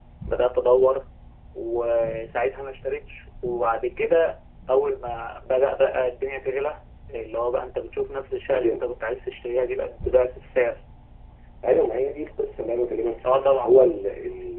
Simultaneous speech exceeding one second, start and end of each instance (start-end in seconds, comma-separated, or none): none